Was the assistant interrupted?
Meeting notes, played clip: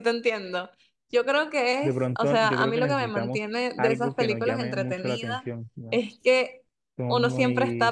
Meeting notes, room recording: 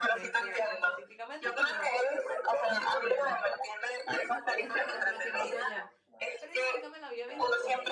Yes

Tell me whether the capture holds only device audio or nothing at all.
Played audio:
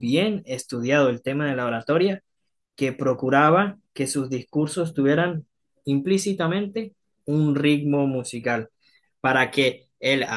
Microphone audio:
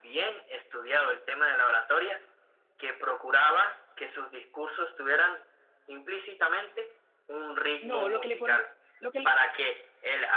No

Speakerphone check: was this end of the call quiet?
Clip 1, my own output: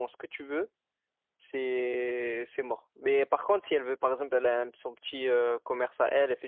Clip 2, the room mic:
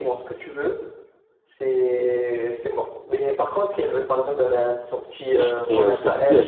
No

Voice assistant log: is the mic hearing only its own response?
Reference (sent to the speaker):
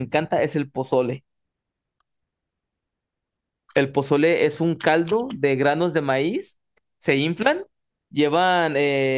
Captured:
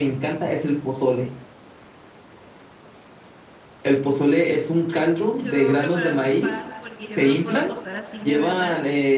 No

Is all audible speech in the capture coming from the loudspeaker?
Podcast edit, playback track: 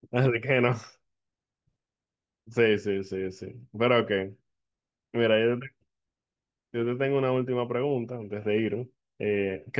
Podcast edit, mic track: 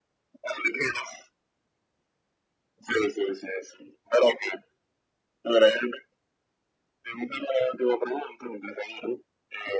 Yes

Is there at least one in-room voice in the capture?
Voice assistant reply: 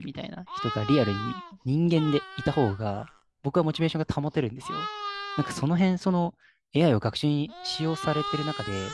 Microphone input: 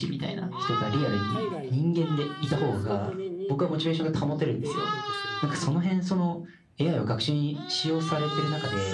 Yes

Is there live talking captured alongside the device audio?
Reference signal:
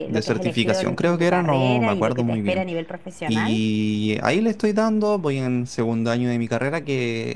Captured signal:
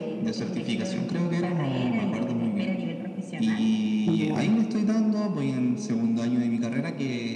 Yes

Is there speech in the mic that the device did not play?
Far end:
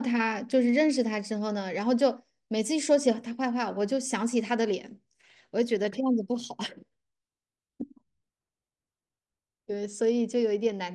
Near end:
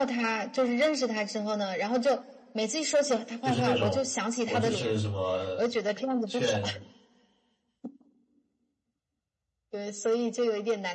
Yes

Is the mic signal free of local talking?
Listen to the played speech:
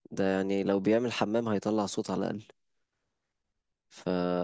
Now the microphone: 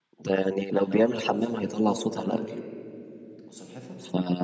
No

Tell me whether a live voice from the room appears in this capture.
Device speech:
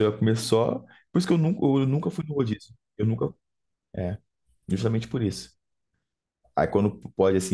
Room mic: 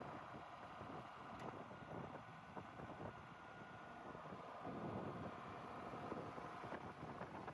No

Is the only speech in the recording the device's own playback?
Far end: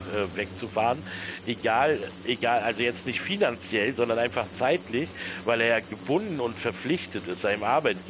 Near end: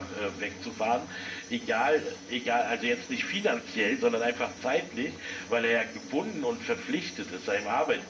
Yes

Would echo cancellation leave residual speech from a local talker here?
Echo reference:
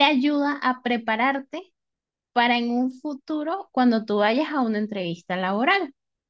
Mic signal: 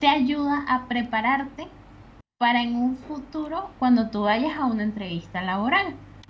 No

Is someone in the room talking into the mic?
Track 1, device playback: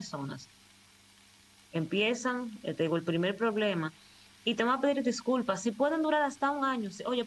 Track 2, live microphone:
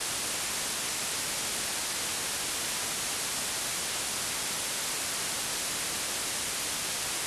No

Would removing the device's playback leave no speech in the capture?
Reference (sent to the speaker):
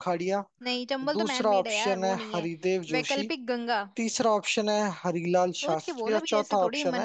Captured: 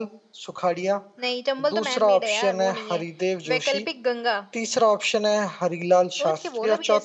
Yes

